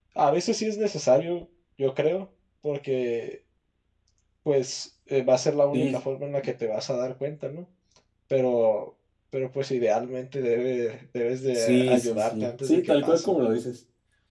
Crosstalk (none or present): present